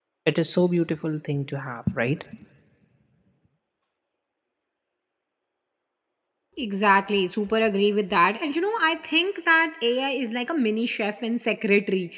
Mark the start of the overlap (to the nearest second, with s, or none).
none